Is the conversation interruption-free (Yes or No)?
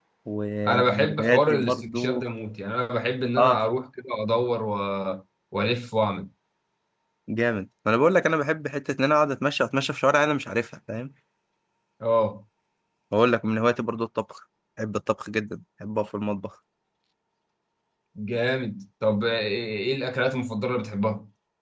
No